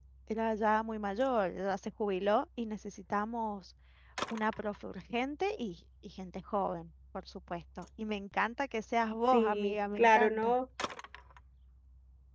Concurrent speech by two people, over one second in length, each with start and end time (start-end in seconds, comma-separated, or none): 9.3-10.5